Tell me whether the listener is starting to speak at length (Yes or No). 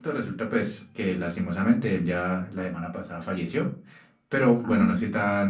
No